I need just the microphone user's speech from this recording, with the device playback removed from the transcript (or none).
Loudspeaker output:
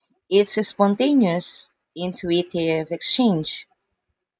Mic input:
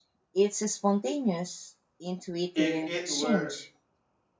If it were,